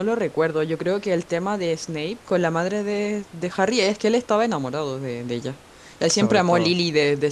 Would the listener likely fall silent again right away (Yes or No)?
Yes